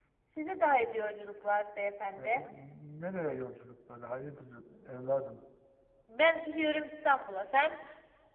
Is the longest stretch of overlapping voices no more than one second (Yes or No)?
Yes